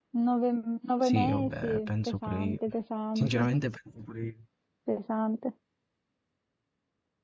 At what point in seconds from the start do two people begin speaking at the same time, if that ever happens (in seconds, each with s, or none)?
1.0 s